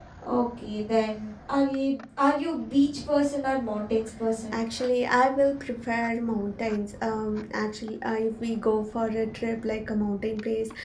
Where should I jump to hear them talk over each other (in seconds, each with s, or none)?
none